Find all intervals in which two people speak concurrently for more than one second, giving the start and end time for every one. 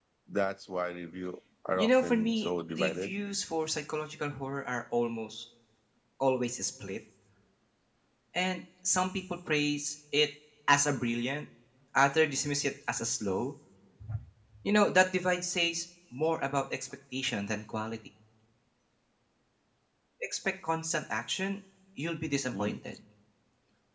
1.8-3.1

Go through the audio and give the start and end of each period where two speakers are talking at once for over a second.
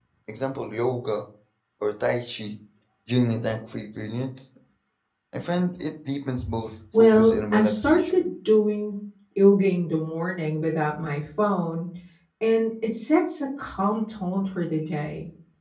7.0-8.3

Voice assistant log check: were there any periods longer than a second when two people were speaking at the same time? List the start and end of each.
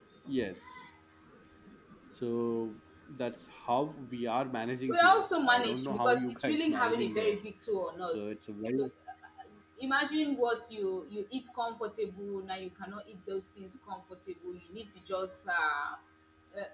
4.9-7.4

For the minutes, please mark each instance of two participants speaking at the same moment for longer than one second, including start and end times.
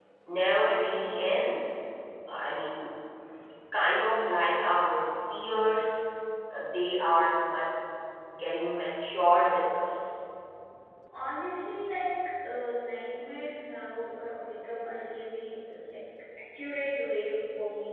none

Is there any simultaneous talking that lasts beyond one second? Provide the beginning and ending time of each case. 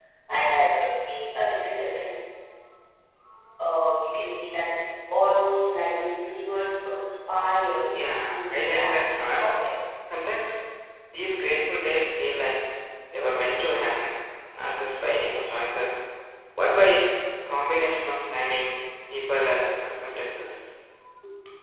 7.9-9.6

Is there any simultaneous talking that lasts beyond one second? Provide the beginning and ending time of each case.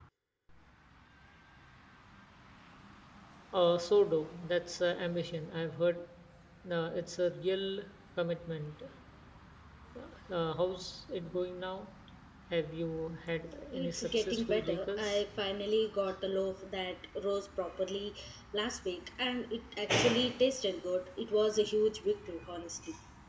13.7-15.2

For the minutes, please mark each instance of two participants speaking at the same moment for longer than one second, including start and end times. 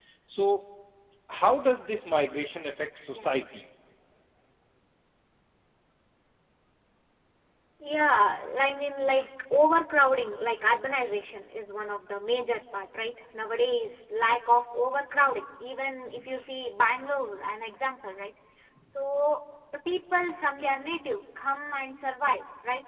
none

